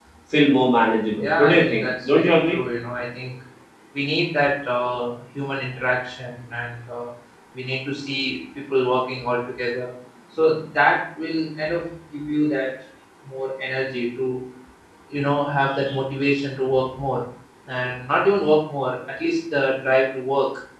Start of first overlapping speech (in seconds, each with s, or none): 1.2 s